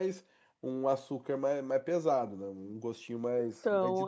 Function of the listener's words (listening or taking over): taking over